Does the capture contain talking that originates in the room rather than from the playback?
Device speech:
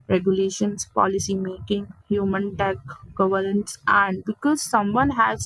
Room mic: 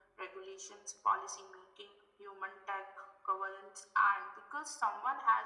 No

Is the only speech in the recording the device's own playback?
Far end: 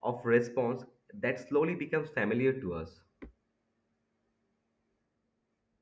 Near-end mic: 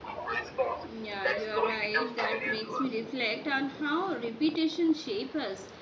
No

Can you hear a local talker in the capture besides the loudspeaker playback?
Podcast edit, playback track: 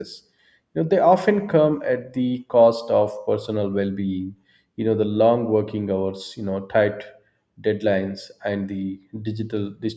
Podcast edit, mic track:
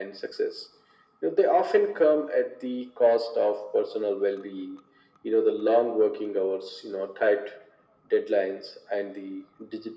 No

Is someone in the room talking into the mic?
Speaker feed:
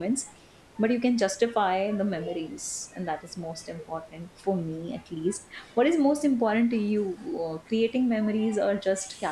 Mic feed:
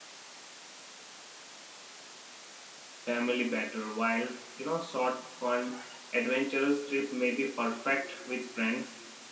Yes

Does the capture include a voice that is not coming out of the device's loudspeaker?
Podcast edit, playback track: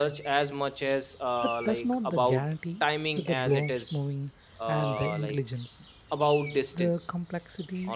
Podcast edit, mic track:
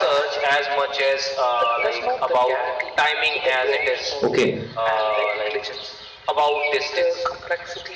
Yes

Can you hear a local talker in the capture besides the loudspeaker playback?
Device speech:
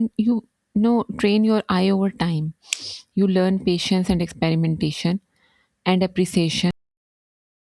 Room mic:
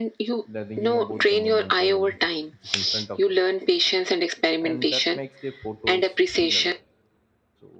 Yes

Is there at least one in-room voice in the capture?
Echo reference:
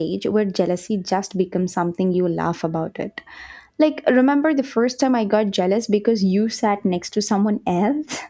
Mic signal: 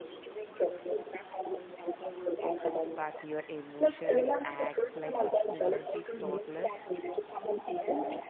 Yes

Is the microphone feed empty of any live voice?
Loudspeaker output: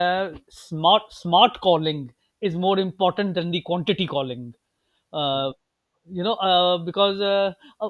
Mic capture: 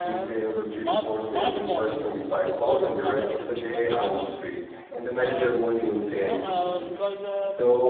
No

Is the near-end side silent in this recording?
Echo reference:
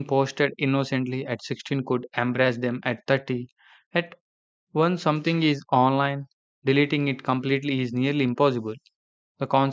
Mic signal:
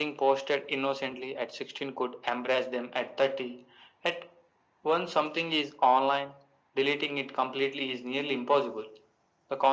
Yes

